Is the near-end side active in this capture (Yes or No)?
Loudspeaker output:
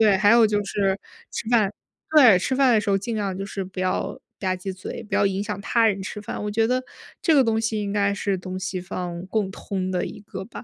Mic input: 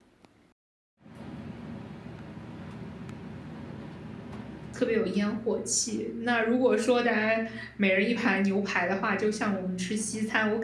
Yes